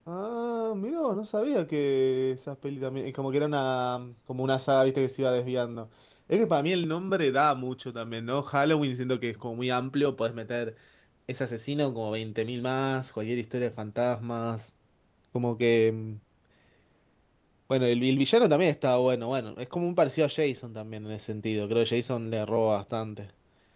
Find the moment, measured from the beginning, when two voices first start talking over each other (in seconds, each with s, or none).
none